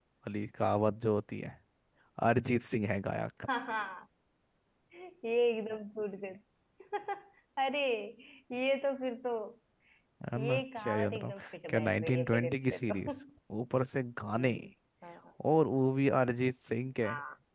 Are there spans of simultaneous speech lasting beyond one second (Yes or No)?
Yes